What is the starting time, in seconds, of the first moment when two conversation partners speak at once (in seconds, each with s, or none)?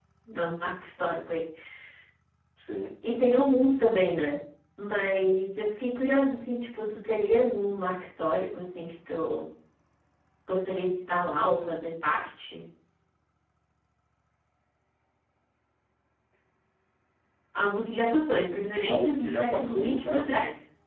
18.5 s